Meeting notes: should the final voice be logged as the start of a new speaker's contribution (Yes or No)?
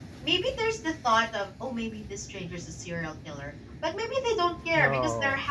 No